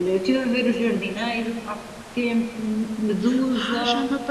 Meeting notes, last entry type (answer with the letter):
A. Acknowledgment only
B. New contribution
B